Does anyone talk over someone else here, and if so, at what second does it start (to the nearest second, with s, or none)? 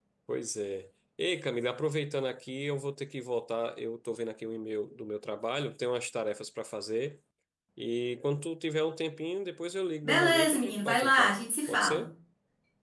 10 s